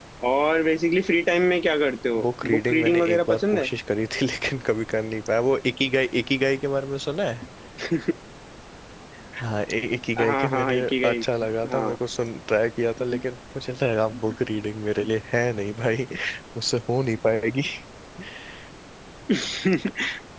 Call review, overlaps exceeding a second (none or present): present